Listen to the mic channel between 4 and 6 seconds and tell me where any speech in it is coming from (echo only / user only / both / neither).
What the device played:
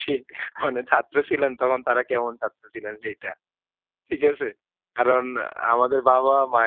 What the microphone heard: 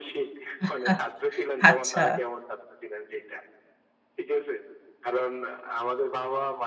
echo only